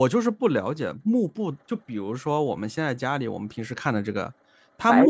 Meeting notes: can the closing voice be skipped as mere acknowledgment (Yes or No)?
Yes